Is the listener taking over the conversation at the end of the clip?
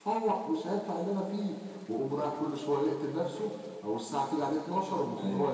Yes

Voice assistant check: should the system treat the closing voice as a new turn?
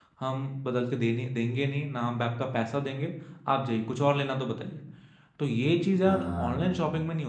No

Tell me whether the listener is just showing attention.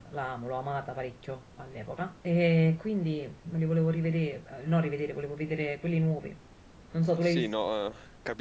No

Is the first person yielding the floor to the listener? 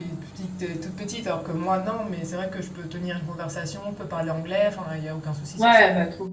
Yes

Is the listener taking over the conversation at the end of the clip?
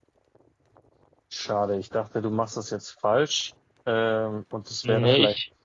No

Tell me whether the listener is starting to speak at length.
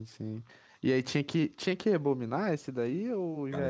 Yes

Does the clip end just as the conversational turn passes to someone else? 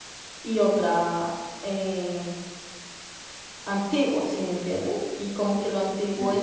No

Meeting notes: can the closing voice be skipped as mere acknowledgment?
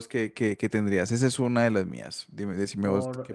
No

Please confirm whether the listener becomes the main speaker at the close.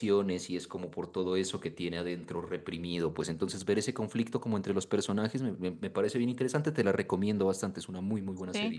Yes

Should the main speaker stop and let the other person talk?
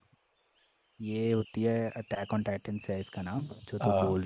No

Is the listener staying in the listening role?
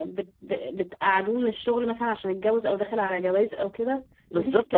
No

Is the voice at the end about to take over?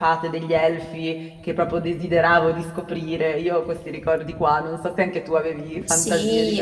Yes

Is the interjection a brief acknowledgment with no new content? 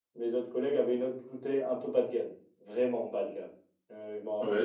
No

